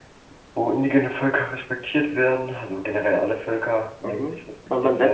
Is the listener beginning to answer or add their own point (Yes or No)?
Yes